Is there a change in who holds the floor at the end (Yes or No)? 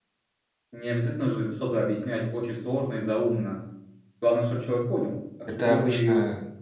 Yes